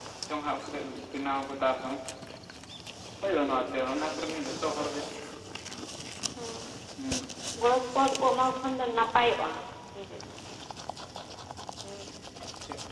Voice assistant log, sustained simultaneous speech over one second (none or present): none